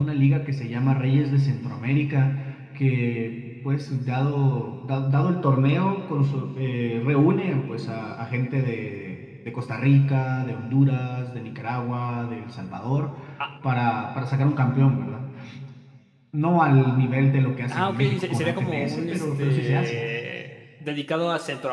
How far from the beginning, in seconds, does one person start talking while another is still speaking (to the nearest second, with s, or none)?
18 s